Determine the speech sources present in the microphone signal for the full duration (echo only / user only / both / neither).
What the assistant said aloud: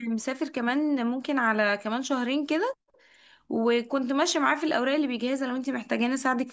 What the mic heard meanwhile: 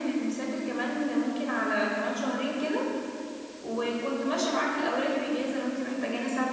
echo only